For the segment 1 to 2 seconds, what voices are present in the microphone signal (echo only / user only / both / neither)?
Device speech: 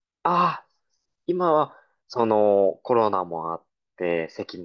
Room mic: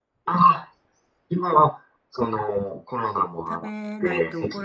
echo only